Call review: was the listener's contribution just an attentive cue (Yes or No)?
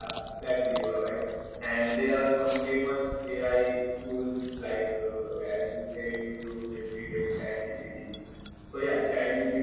Yes